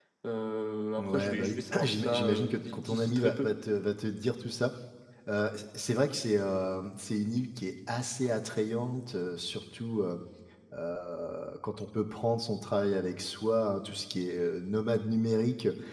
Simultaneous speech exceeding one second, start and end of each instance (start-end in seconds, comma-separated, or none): 1.0-3.5